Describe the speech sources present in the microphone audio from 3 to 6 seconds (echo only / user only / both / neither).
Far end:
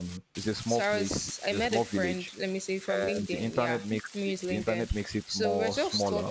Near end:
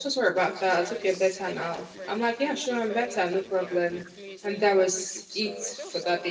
both